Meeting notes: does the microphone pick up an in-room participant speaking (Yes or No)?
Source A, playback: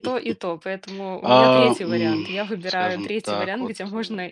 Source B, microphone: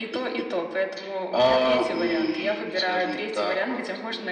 No